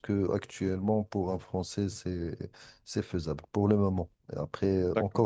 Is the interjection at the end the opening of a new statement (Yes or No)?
No